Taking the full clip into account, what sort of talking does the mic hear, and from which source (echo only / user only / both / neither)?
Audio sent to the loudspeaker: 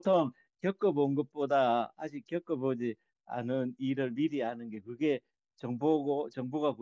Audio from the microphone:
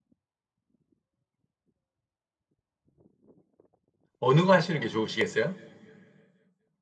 user only